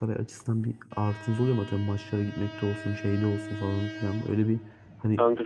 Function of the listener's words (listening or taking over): listening